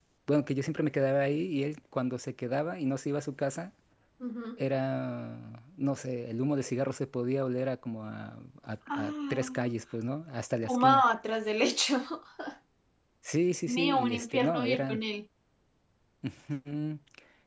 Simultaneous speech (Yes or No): Yes